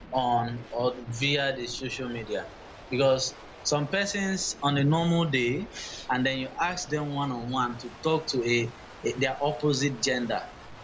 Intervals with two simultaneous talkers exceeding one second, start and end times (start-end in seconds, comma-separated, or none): none